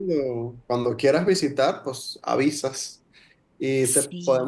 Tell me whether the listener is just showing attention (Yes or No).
Yes